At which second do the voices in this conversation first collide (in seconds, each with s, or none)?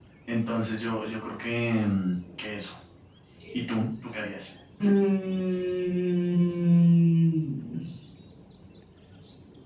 none